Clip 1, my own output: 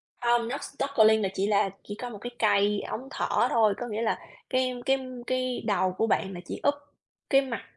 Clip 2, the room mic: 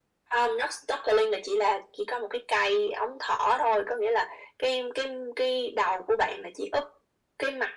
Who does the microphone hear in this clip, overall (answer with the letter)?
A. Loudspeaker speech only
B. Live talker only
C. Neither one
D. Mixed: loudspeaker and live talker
A